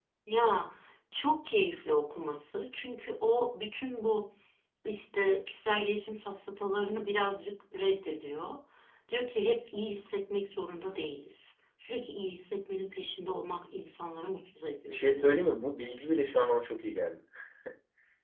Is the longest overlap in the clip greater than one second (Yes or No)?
No